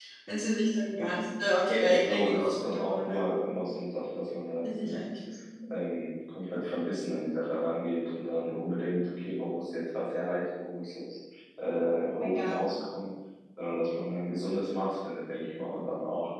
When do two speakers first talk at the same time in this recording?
1.8 s

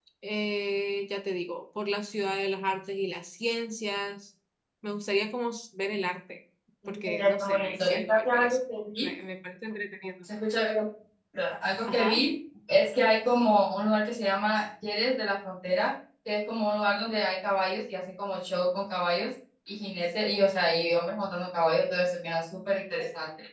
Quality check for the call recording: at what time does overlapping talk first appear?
6.9 s

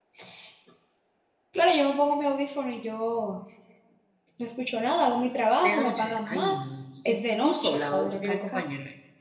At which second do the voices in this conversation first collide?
5.6 s

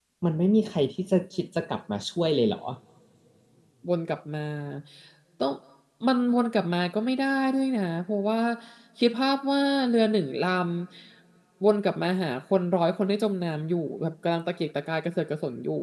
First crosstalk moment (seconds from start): none

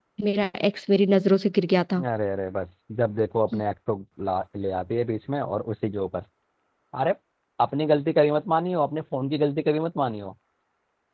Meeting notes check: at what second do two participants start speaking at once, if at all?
none

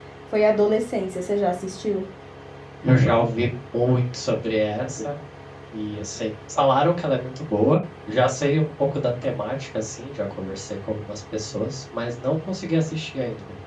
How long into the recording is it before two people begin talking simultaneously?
none

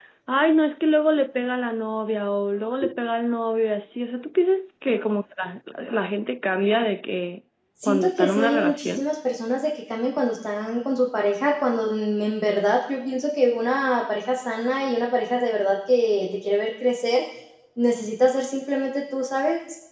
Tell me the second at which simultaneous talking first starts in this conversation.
7.8 s

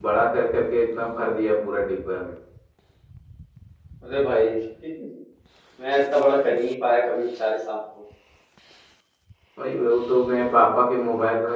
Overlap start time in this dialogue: none

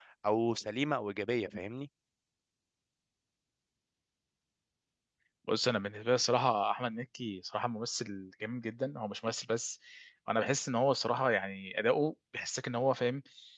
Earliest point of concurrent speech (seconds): none

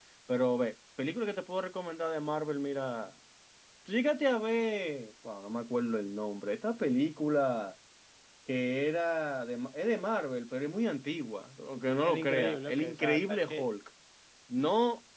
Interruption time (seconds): 12.0 s

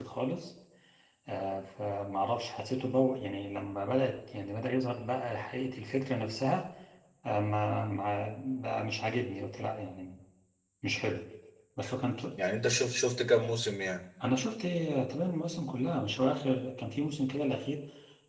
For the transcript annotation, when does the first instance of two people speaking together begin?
none

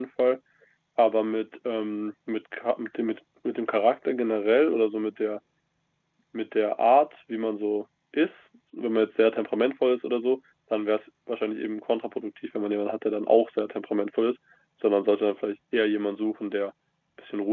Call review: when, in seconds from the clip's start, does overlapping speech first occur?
none

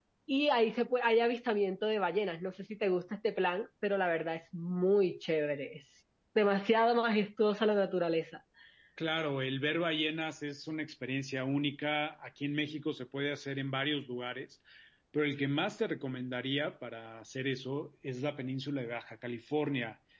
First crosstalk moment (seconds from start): none

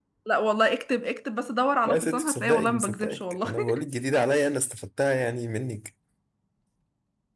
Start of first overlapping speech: 1.8 s

